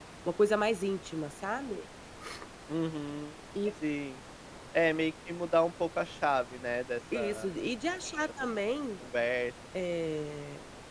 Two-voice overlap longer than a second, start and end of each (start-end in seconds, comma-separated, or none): none